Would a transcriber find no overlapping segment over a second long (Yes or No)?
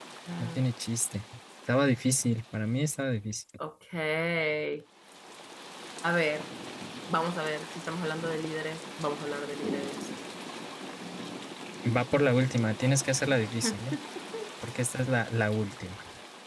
Yes